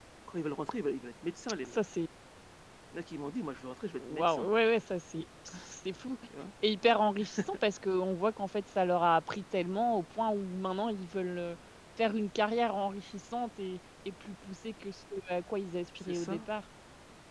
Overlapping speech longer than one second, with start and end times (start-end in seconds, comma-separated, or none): none